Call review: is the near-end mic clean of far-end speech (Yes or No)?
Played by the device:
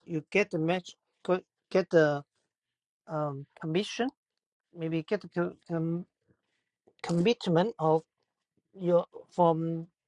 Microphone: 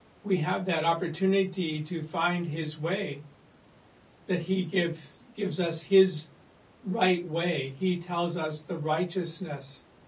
Yes